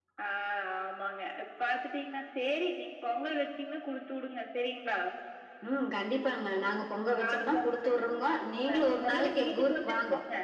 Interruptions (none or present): present